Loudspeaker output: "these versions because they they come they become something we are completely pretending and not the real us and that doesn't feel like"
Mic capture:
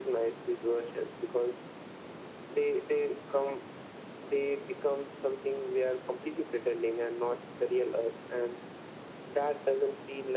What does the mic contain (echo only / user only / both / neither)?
echo only